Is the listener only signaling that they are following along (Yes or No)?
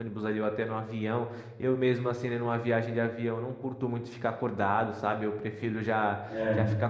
Yes